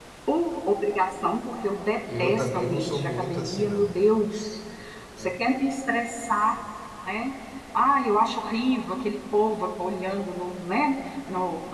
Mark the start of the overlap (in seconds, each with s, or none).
2.1 s